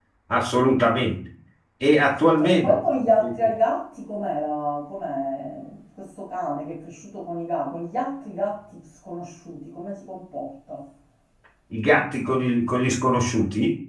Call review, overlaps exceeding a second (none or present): none